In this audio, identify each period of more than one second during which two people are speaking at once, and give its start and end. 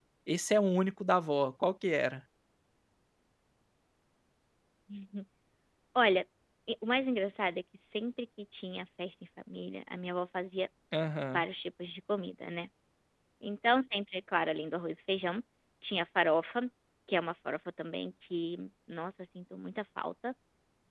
none

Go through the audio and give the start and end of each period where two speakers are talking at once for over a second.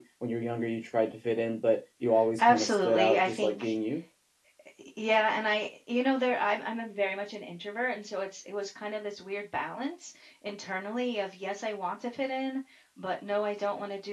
2.5-3.7

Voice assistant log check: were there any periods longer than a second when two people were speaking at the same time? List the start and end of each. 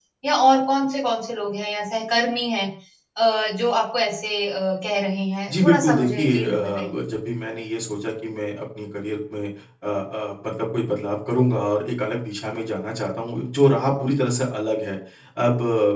5.5-7.0

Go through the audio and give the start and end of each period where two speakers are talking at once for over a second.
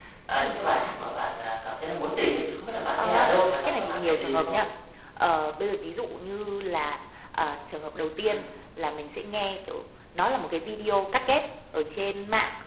3.0-4.5

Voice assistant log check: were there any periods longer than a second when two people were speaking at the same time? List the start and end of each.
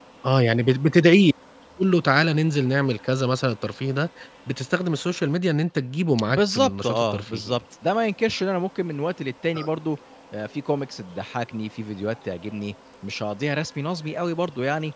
6.3-7.6

